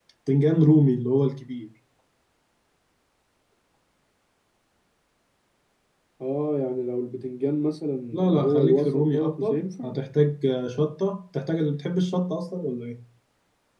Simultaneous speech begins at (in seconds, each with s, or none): 8.1 s